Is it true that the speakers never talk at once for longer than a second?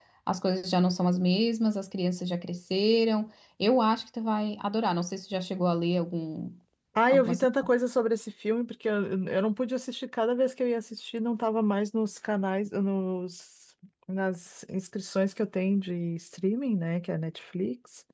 Yes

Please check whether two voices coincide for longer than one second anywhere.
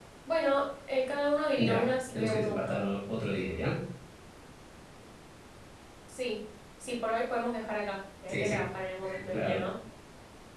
Yes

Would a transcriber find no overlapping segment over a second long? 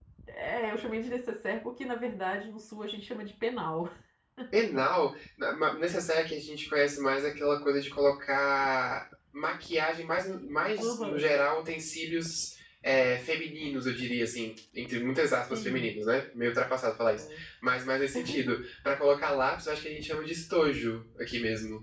Yes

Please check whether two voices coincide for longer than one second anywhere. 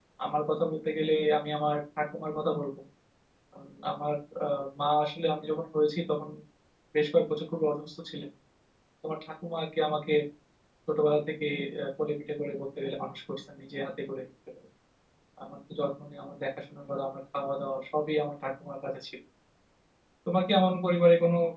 No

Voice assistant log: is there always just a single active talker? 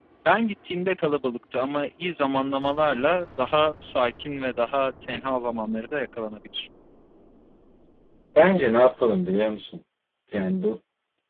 Yes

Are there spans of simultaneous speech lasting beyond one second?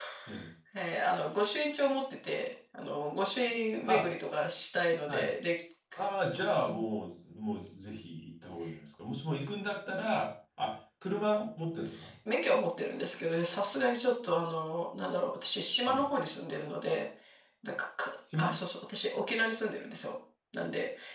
No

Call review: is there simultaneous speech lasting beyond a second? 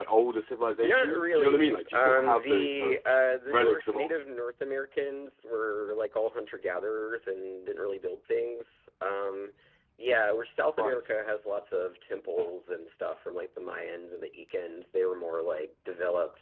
Yes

